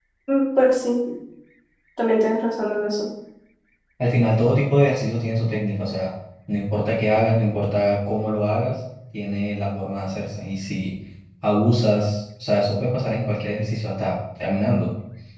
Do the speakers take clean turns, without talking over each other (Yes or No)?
Yes